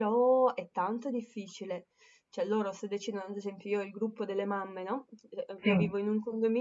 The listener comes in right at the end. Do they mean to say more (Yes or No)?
No